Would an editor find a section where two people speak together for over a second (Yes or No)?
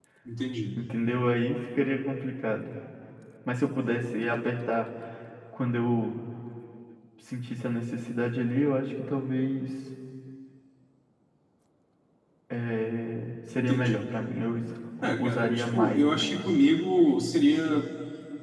Yes